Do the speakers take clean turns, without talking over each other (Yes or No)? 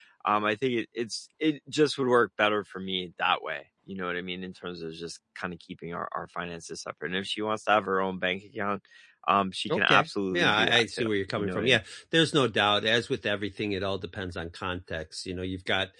No